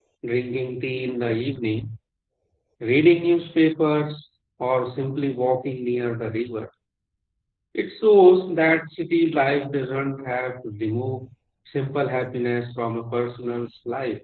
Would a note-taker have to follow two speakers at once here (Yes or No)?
No